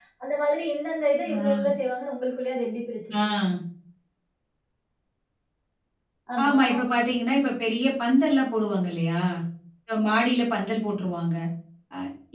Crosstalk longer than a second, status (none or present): none